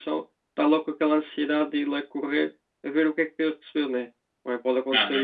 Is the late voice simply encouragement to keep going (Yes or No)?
Yes